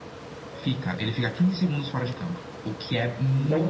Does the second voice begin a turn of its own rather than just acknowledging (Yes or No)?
Yes